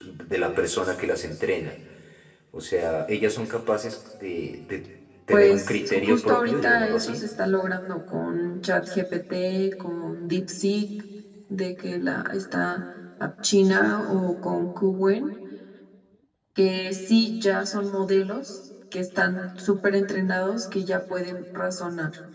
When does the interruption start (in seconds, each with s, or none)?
5.3 s